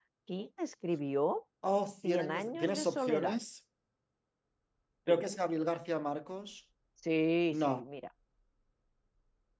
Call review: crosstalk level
present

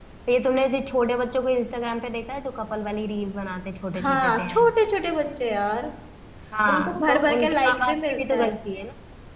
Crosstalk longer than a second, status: present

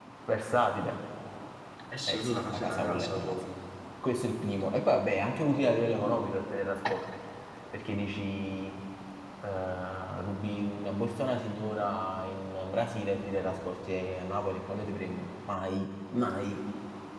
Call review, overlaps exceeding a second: present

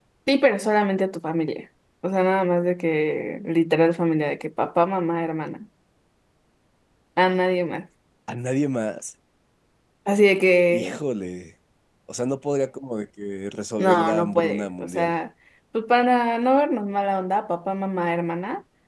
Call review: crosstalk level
present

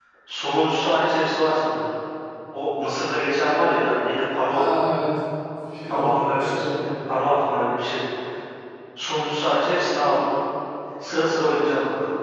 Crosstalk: present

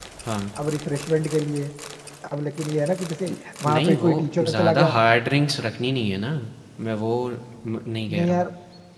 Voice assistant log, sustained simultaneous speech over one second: present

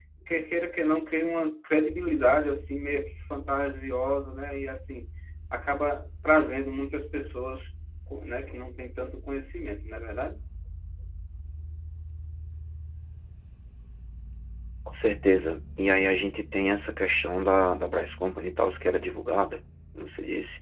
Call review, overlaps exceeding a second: none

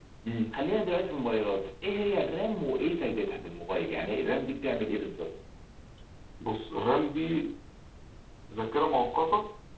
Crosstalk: none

